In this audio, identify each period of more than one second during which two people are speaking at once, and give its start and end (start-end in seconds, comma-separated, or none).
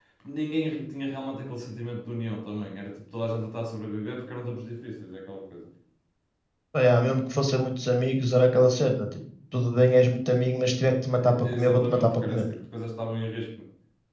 11.2-12.4